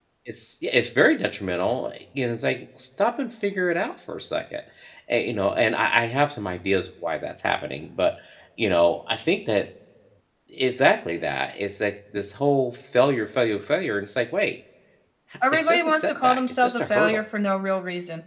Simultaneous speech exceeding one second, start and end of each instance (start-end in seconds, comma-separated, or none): 15.5-17.2